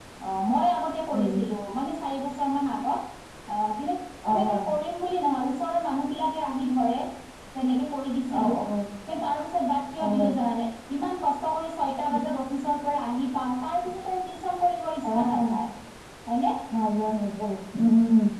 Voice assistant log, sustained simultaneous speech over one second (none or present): none